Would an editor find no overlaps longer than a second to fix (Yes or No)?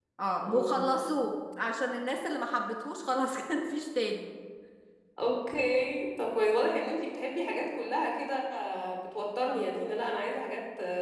Yes